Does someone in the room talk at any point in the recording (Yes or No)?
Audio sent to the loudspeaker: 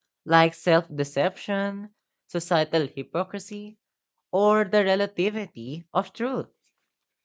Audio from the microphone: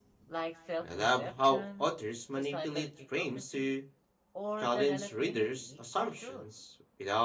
Yes